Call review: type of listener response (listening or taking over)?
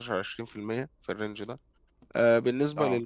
listening